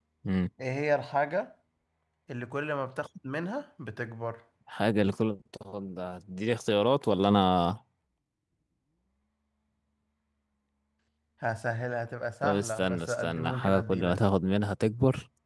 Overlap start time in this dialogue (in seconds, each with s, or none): 12.4 s